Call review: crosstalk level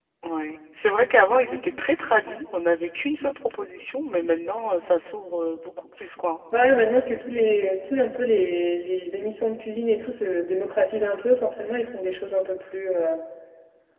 none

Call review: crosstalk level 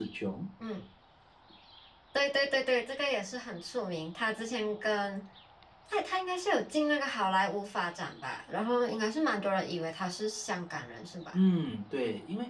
none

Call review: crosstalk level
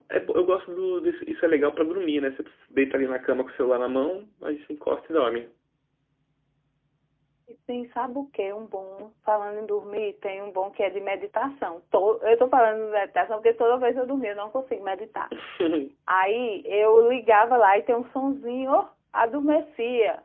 none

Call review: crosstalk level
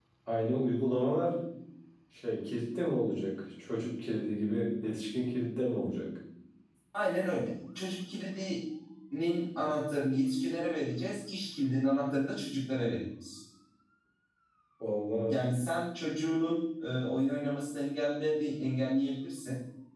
none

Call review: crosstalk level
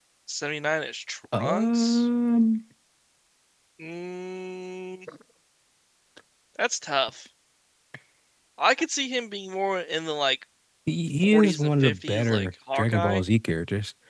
present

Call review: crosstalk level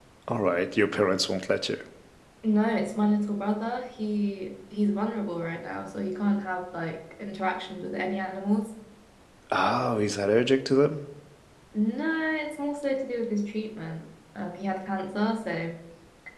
none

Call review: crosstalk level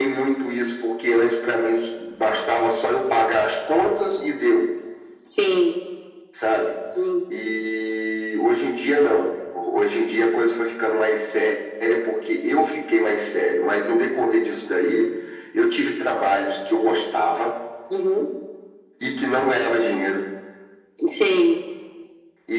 none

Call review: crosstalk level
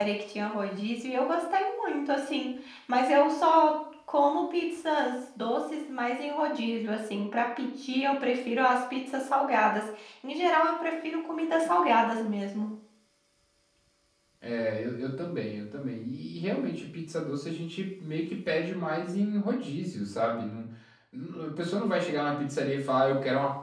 none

